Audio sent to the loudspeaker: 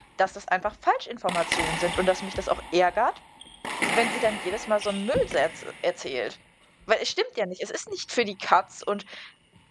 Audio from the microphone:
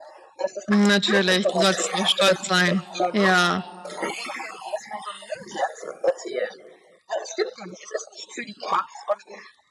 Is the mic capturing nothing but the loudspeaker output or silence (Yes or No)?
No